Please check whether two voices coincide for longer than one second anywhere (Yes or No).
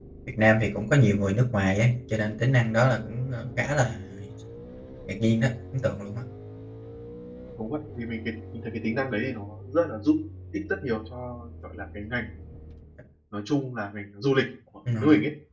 No